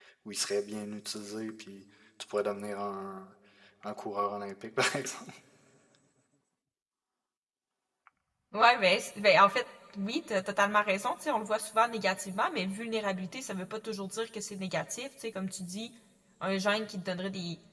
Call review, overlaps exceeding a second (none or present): none